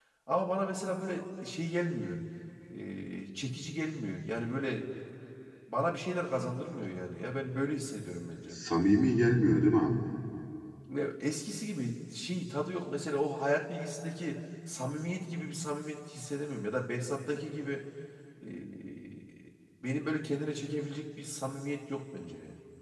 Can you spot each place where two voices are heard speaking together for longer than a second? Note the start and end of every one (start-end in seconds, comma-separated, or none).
none